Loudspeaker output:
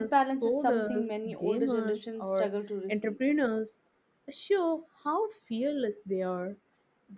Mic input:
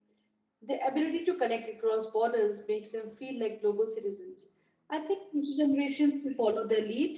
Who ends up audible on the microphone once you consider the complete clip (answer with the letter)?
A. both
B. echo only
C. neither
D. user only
D